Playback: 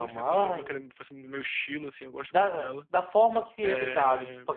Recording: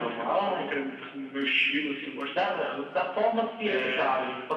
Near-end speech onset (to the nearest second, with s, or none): none